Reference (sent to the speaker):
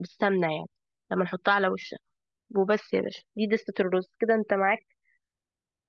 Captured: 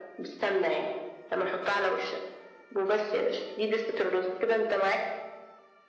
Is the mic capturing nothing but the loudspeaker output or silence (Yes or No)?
Yes